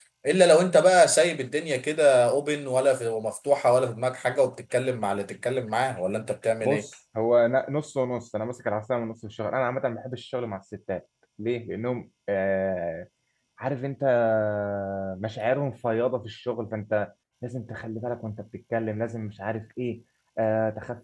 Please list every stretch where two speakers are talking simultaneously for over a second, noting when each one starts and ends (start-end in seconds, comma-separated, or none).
none